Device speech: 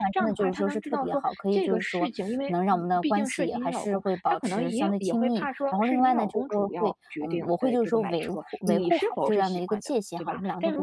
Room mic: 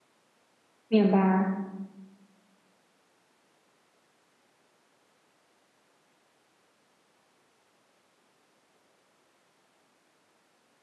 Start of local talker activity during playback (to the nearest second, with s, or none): 1 s